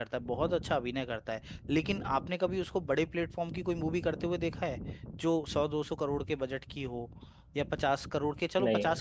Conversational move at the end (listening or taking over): listening